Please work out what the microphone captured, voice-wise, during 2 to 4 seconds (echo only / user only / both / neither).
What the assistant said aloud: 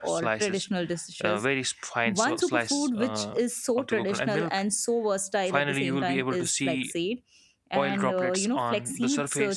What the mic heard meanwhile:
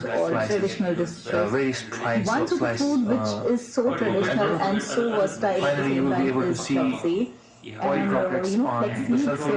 both